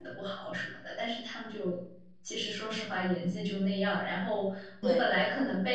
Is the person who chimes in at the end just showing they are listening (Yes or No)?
Yes